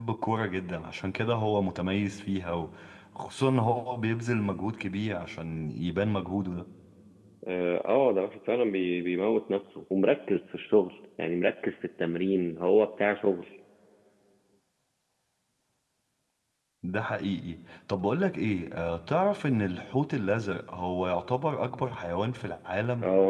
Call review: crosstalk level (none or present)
none